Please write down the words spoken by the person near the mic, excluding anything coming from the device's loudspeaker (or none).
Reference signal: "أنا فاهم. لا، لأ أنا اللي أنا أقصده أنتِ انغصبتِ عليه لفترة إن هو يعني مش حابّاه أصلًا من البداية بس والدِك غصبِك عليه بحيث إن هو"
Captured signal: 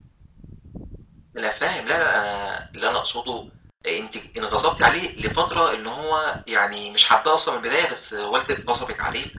none